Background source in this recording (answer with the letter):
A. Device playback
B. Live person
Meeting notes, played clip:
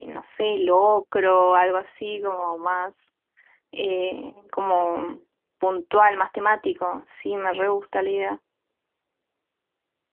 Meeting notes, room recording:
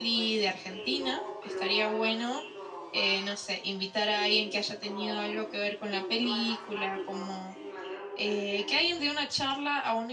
A